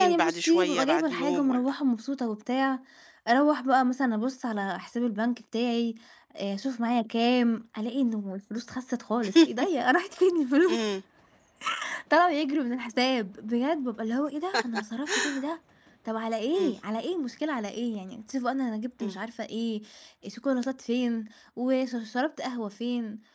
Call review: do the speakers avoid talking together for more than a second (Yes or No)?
No